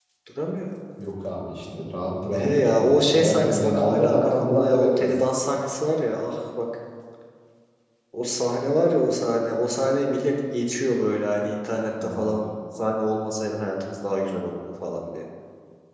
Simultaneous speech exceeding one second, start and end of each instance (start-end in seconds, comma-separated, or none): 2.4-5.1